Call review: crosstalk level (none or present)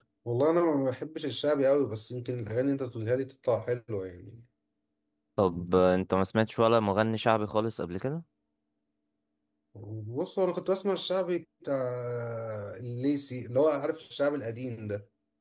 none